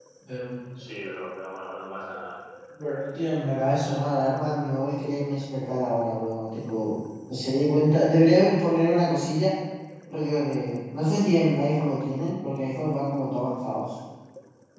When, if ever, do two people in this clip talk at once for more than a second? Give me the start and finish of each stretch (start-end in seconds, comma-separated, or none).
none